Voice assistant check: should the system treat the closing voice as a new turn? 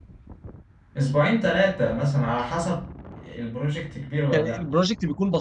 Yes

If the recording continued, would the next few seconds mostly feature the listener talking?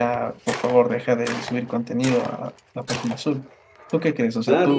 Yes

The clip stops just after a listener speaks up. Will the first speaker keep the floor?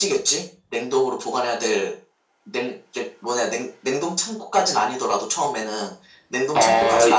No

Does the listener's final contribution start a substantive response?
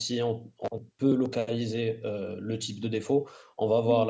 No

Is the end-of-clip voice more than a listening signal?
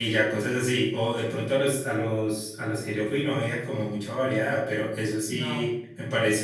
No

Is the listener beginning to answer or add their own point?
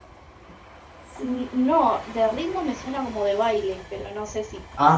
Yes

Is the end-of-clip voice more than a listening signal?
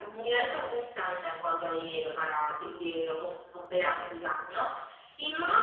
No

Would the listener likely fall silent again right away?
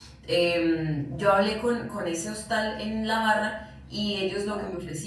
Yes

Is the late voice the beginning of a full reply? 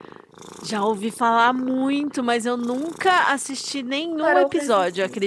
Yes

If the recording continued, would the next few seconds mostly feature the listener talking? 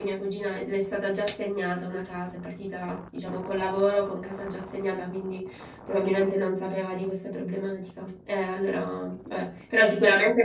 No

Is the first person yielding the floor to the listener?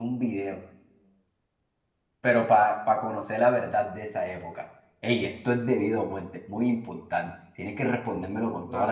Yes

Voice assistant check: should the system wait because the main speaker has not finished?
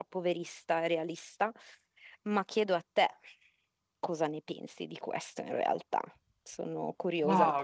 No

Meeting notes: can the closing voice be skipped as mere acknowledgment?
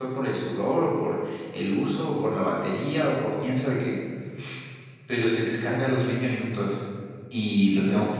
Yes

